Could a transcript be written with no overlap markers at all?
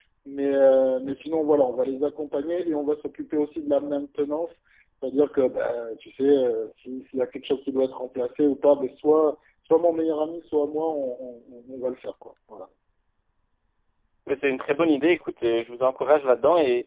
Yes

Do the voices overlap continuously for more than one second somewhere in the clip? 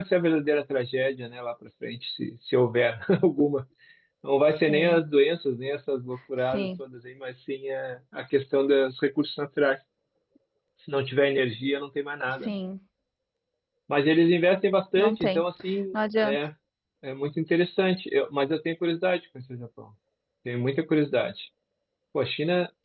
No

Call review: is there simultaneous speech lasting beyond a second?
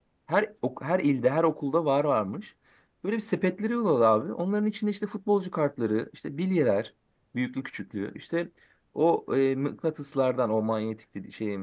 No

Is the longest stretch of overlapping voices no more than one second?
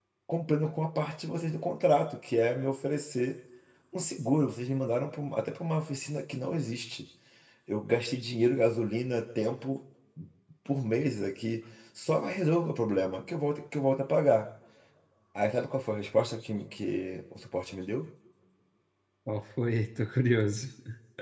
Yes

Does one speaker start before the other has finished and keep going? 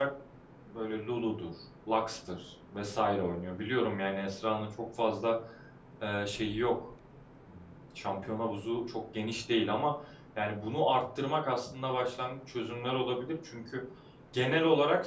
No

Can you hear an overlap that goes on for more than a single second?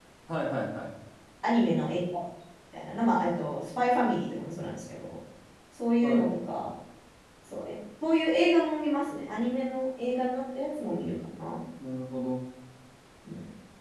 No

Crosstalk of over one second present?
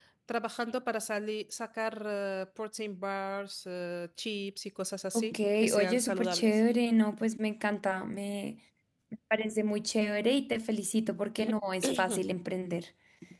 Yes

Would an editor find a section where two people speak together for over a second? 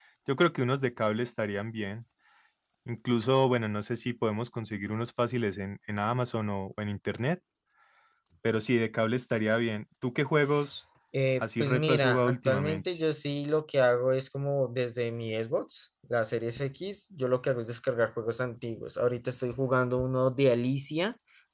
Yes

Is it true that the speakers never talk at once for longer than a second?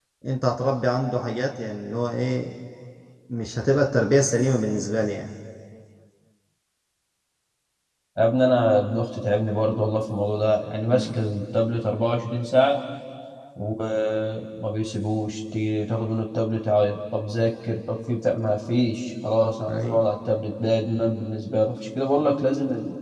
Yes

